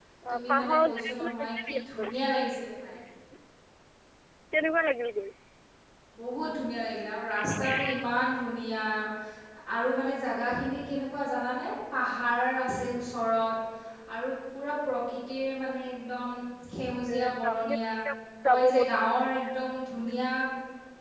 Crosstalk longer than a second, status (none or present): present